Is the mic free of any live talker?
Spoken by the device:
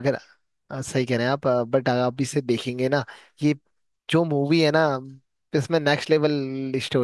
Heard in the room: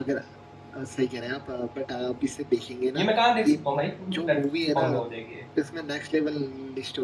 No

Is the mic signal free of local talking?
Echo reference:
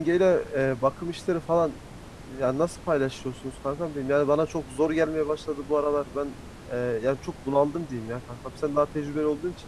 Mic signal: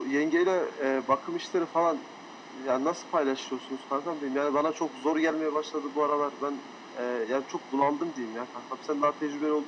Yes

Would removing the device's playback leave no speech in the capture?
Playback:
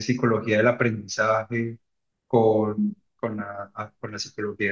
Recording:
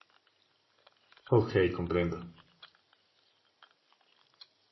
No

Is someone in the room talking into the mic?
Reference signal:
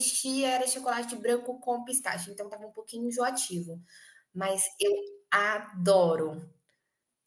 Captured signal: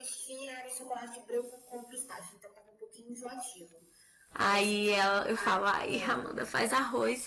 Yes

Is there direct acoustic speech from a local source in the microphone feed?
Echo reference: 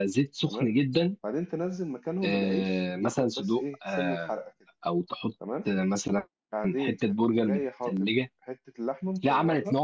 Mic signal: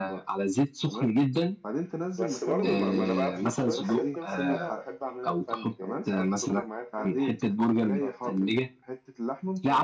Yes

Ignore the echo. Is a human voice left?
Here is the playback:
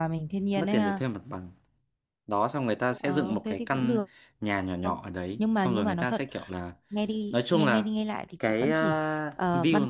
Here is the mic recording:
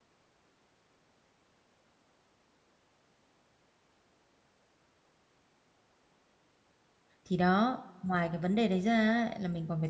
Yes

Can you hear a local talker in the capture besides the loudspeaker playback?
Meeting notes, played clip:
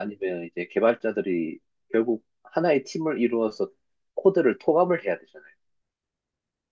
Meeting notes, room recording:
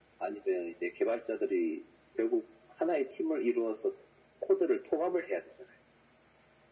No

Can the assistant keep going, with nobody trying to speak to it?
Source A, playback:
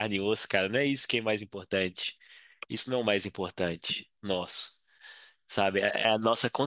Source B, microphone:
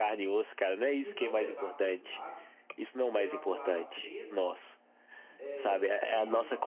No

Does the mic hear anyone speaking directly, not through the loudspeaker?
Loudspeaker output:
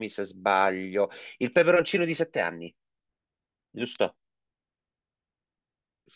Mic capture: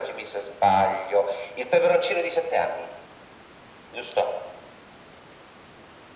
No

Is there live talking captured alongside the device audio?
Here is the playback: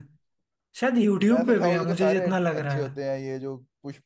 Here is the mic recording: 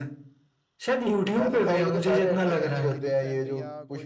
Yes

